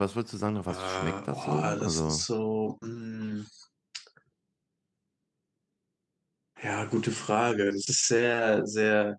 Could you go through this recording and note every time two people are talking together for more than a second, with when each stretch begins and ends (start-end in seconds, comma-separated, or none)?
0.7-2.2